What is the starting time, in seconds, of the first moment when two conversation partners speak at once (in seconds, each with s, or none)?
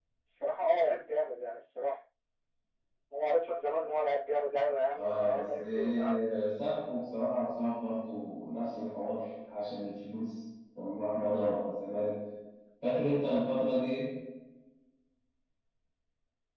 4.9 s